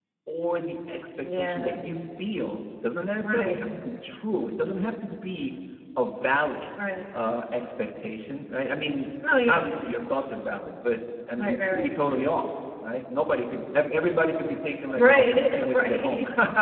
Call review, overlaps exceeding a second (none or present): present